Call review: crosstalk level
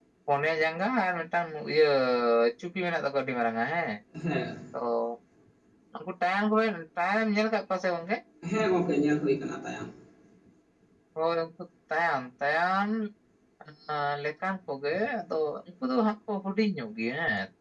none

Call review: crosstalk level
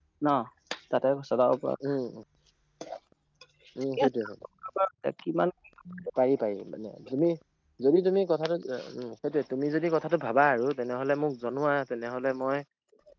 none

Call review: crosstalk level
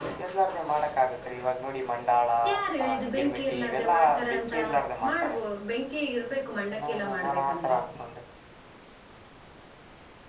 present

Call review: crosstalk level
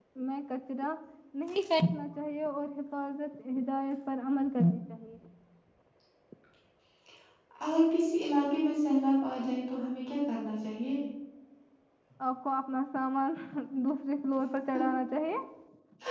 none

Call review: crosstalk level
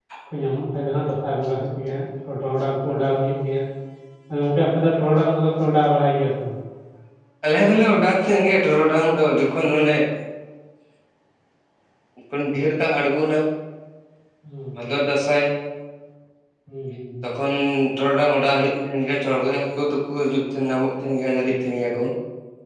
none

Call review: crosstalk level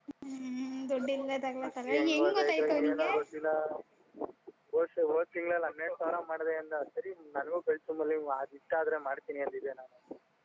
present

